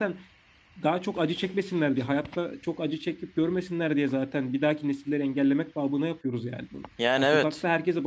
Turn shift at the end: No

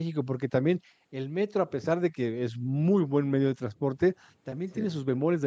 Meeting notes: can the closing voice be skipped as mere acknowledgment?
Yes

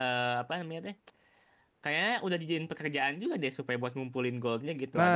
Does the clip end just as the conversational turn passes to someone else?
Yes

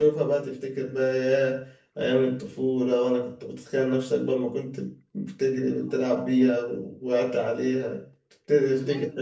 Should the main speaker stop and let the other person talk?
Yes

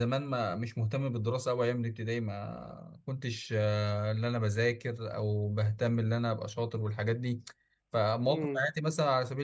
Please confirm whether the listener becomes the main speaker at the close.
No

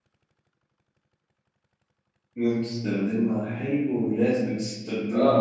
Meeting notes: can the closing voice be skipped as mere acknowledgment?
No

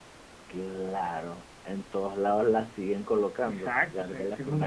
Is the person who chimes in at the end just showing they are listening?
No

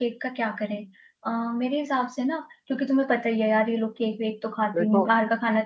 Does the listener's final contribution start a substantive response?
No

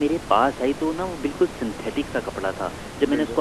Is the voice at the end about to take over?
No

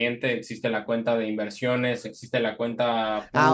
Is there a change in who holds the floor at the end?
Yes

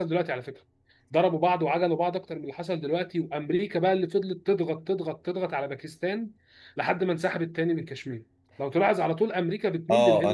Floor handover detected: Yes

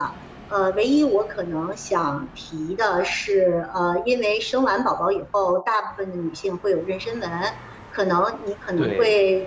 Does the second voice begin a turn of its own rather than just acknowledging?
No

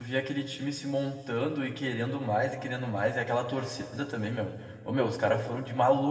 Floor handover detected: No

